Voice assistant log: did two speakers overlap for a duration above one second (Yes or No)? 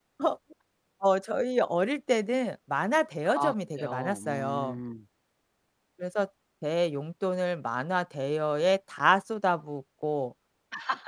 Yes